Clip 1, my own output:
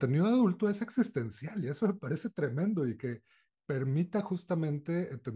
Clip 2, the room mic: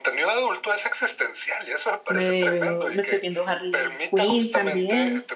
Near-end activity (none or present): present